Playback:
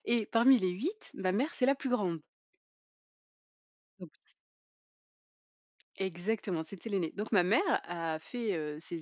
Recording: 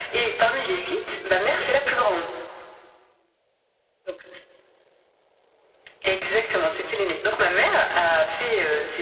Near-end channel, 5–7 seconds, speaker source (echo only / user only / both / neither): echo only